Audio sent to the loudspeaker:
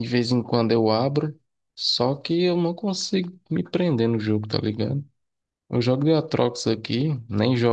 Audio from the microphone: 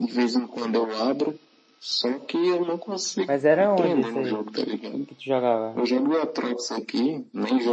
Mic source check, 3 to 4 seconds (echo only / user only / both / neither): both